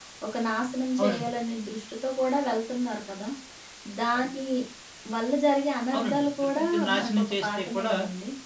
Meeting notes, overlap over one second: present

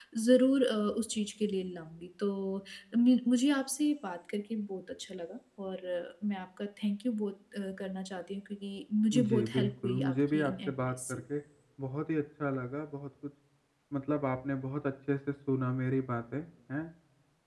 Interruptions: present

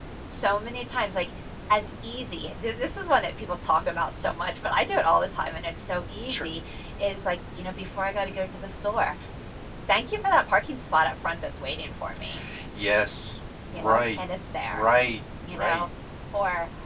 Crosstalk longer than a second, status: none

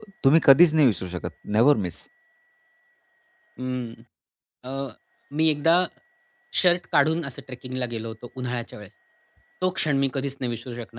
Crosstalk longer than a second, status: none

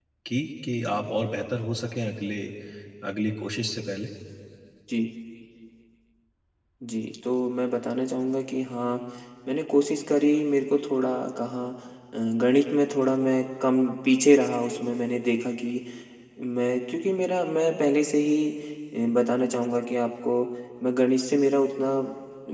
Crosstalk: none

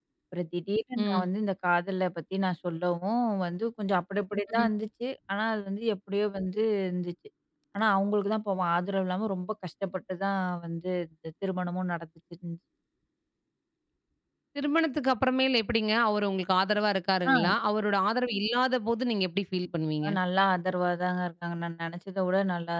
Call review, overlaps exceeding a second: none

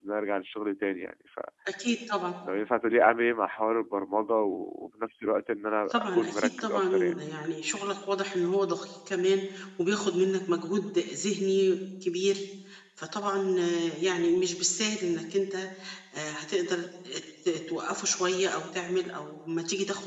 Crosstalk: present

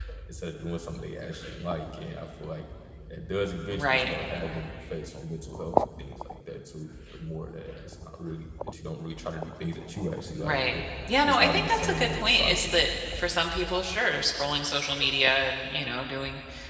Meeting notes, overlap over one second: present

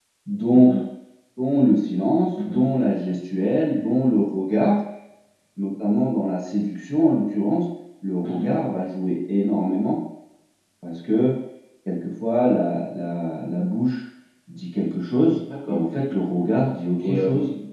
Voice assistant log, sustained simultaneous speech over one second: none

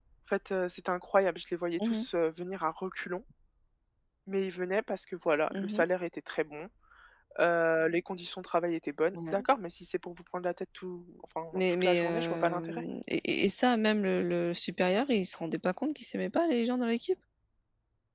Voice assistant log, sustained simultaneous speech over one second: present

